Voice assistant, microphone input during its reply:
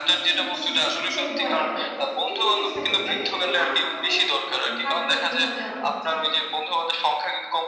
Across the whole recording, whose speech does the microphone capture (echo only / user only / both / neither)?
both